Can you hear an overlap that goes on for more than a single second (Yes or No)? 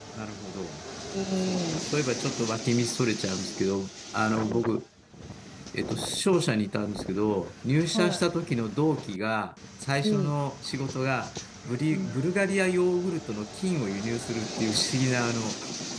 No